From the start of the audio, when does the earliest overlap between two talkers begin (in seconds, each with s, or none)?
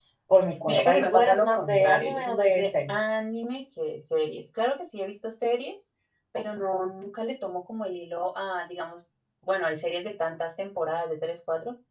0.7 s